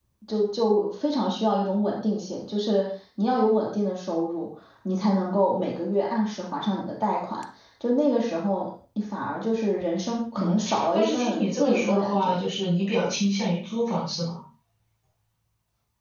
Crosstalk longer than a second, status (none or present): present